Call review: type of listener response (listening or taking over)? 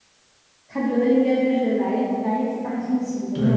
taking over